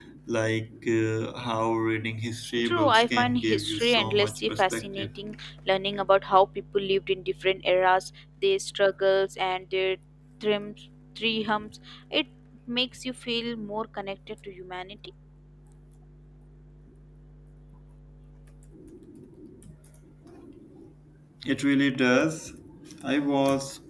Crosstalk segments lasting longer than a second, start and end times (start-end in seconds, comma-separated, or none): 2.6-5.1